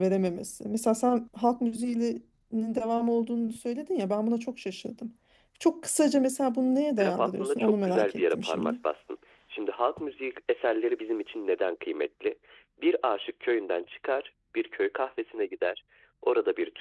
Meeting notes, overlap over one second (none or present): present